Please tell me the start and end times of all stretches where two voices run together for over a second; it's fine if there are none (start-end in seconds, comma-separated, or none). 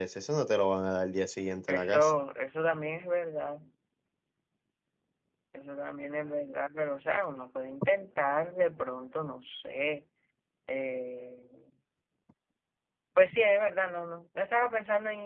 none